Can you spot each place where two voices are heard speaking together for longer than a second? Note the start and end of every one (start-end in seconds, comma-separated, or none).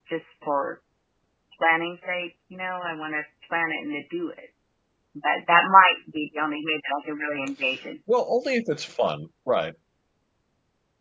none